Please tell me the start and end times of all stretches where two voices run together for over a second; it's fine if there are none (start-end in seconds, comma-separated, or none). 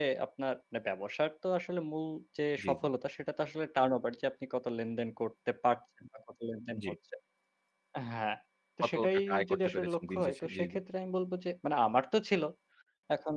8.8-10.6